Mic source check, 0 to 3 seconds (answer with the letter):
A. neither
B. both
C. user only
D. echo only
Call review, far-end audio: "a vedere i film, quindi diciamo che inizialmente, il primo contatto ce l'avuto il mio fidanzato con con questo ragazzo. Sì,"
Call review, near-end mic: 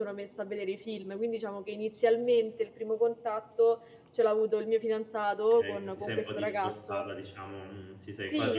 D